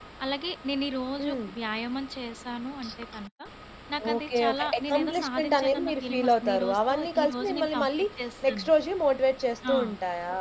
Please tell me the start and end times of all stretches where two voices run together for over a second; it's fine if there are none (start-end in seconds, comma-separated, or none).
4.1-8.1